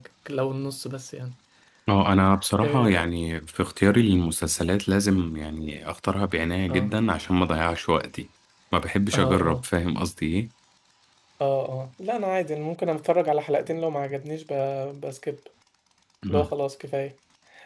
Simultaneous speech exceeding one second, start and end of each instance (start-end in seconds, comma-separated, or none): none